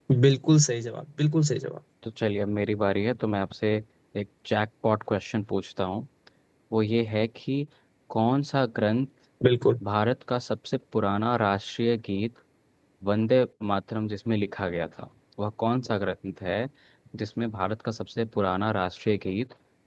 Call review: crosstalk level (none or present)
none